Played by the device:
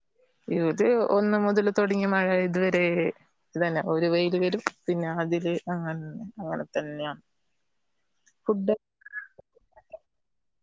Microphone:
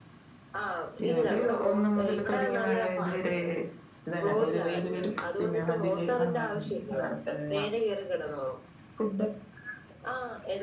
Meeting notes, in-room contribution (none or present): present